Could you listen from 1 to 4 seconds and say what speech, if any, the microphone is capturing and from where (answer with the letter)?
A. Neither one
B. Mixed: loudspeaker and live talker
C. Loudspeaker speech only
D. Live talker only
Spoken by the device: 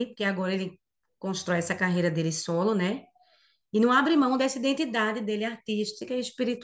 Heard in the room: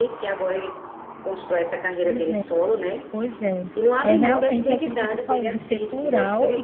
B